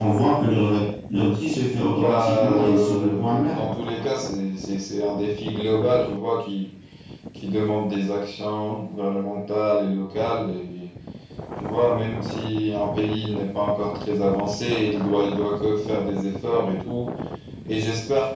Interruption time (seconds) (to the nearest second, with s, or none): 2 s